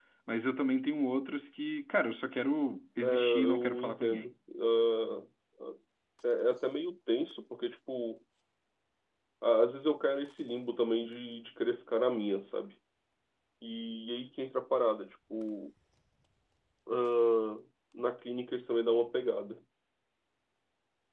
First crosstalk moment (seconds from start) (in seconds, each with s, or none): 3.0 s